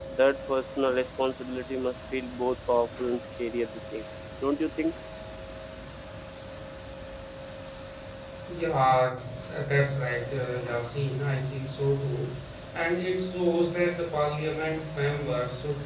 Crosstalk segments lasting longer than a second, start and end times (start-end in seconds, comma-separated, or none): none